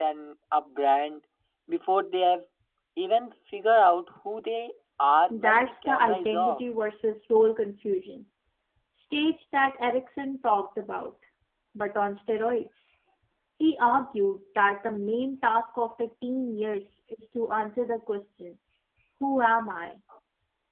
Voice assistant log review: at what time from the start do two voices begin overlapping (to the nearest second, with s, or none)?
5 s